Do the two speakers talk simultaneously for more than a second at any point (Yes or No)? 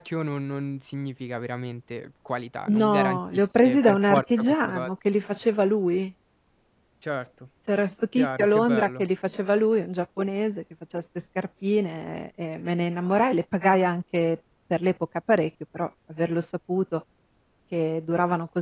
Yes